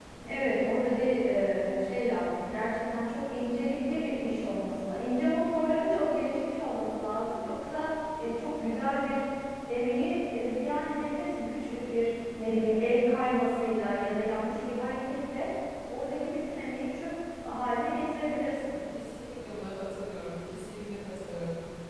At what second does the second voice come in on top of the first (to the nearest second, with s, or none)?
none